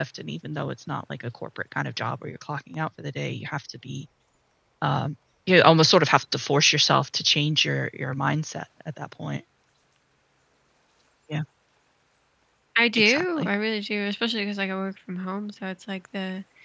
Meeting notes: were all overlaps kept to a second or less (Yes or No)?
Yes